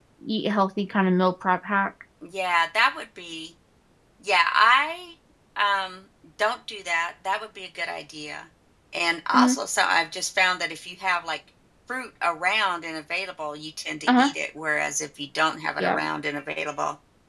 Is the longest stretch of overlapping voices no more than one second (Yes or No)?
Yes